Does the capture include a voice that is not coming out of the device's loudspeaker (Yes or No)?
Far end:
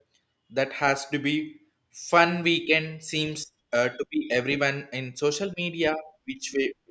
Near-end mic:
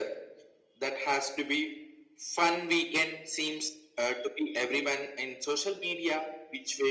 No